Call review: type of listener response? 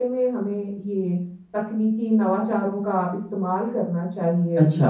taking over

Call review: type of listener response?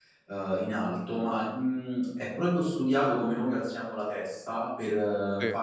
listening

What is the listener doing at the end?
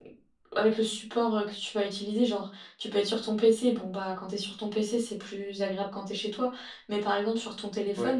listening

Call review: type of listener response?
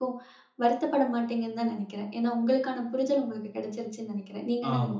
taking over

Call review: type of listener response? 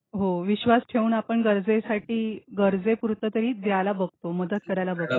taking over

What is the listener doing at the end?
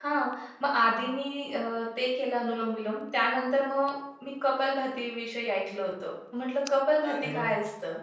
listening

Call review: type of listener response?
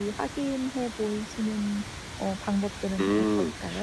taking over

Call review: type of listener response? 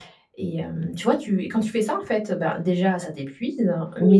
listening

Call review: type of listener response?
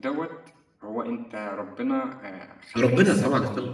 taking over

